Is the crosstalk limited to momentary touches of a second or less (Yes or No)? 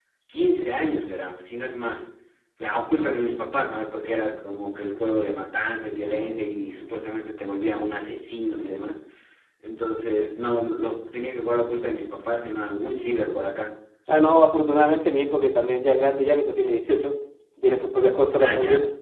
Yes